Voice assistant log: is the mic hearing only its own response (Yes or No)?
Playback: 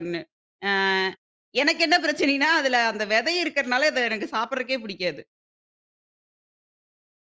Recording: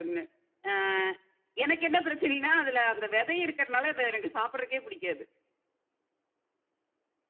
Yes